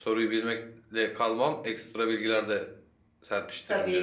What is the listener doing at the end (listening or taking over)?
taking over